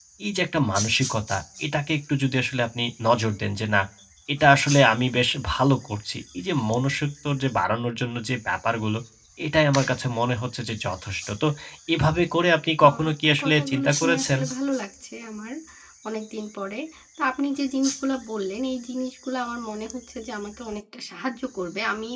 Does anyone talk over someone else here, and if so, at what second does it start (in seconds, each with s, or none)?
12.8 s